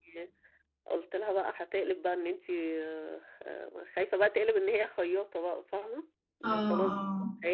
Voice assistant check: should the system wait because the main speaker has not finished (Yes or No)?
Yes